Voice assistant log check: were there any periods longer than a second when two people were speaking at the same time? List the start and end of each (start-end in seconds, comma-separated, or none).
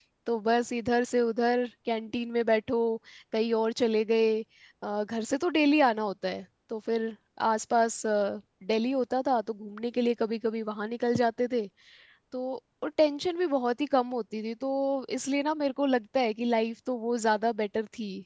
none